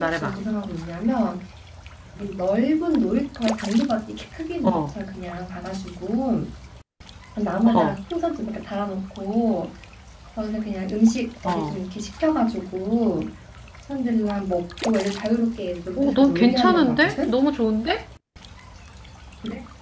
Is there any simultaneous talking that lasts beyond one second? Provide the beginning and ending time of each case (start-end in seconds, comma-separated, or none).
16.0-17.3